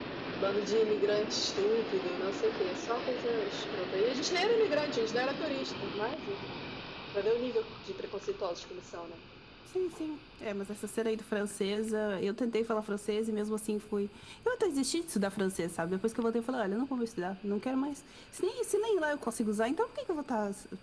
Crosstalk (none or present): none